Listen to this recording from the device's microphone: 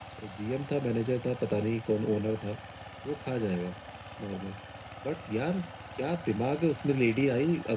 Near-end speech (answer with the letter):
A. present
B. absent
B